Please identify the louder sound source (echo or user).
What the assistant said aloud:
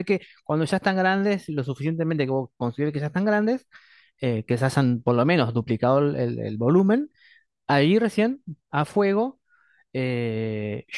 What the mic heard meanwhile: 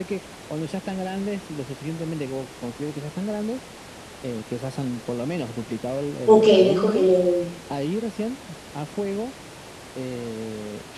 user